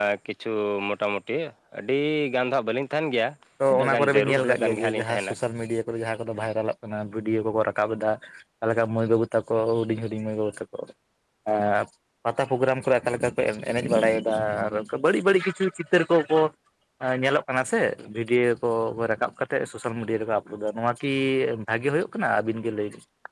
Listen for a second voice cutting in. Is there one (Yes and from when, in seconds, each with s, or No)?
Yes, from 3.7 s